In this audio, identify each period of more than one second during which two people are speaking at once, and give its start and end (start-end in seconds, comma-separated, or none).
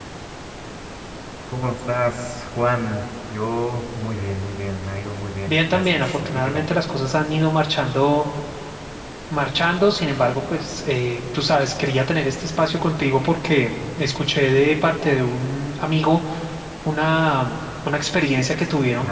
5.5-6.7